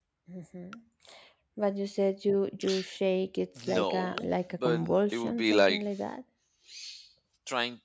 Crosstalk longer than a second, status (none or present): present